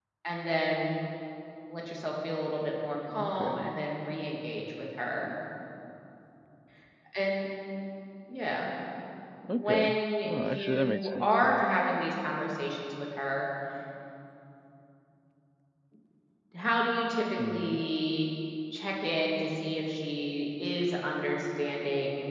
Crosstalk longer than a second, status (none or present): present